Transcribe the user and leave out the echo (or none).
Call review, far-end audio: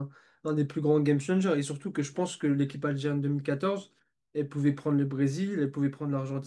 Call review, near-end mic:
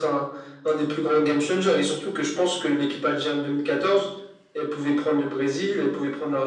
none